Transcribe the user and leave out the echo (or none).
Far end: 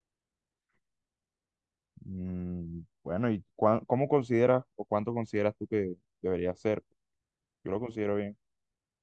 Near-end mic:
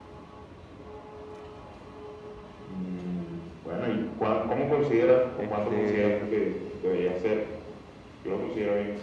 Este,